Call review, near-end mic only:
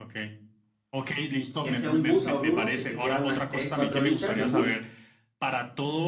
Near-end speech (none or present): present